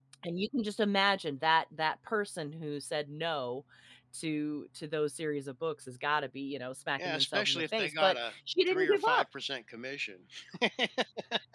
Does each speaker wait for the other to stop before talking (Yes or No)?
No